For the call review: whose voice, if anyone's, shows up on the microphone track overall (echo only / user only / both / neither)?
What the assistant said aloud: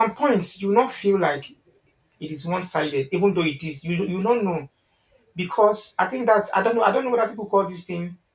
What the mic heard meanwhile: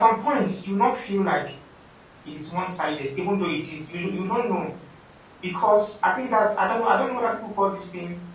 echo only